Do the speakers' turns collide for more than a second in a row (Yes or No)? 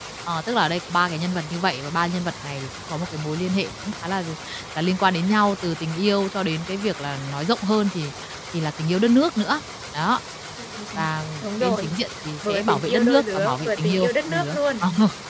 Yes